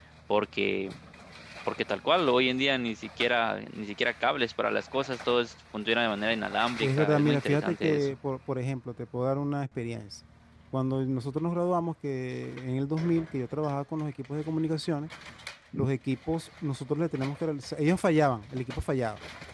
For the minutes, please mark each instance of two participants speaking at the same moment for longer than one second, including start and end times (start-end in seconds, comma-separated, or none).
6.8-8.1